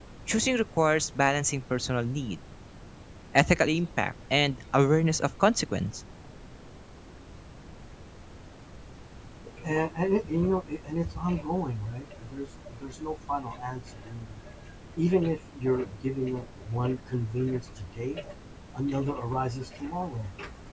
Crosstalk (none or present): none